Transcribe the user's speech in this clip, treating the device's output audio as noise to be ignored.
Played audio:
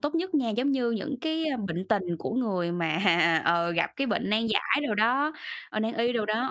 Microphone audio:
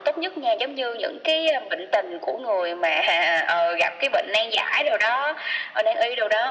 none

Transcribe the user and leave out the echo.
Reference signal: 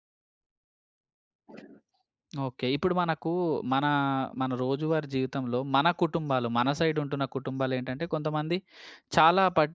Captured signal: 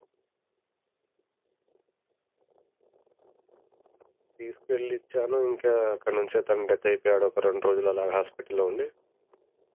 తీసుకెళ్ళి ఇచ్చాను ఇంకా అక్కడి నుంచే తను డెత్ అయిపోయాడు ఒక 2 రోజులు అలాగా హాస్పిటల్‌లో ఉండి.

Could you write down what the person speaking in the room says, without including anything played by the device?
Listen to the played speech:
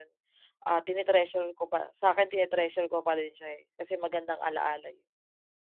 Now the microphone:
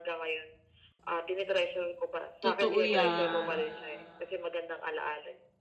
Totoo yan.

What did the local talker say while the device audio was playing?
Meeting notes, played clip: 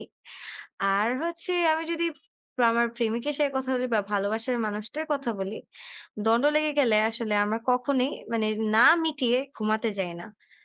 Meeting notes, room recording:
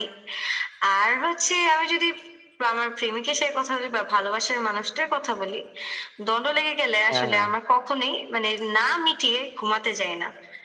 হ্যাঁ, হ্যাঁ।

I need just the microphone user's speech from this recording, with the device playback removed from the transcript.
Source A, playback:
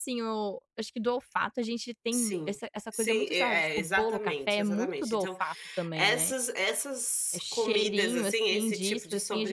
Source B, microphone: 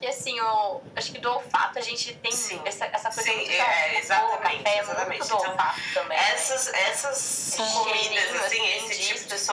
Ah!

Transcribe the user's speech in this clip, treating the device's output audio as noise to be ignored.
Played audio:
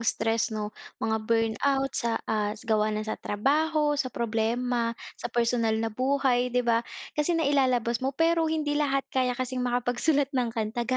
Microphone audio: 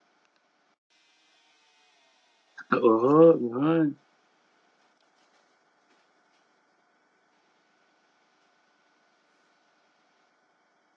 Oo, yun.

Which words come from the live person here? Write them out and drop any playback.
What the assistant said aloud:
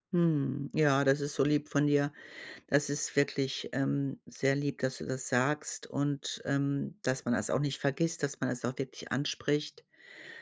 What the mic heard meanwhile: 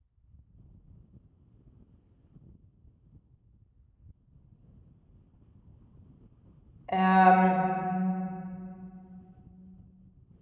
Ähm,

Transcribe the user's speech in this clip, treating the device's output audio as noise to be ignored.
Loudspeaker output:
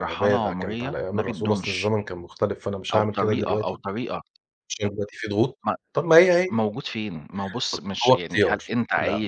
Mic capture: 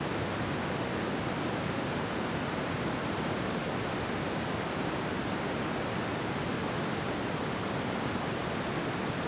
none

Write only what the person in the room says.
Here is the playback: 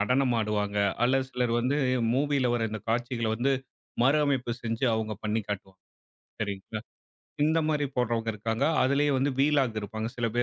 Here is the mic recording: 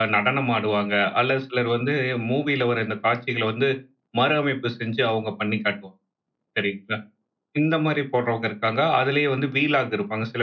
none

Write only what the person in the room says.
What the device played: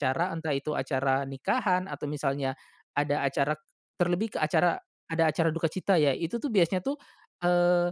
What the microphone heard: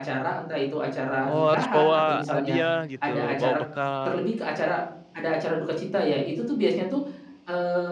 Oh, harus bawa hadiah gitu, bawa bekal.

